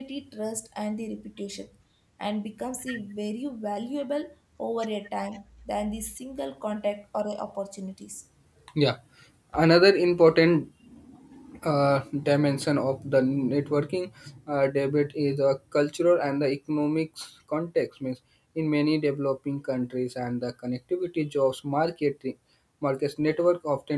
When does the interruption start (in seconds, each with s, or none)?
none